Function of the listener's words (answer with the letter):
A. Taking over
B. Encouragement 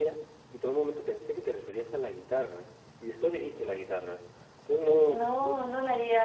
A